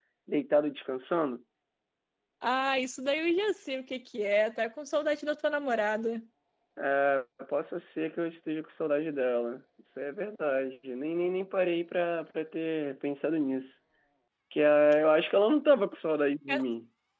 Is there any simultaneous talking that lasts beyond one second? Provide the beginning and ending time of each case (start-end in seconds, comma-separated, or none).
none